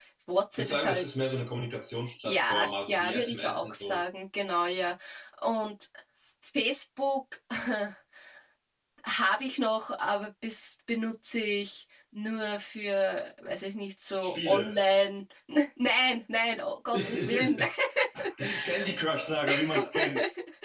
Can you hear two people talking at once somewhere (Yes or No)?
Yes